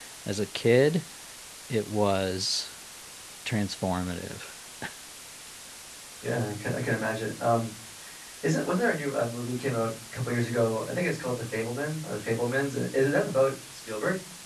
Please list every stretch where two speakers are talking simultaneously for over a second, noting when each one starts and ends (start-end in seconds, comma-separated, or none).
none